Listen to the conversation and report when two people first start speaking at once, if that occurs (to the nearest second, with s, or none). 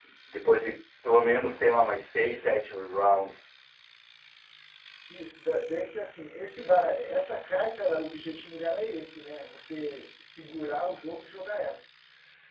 none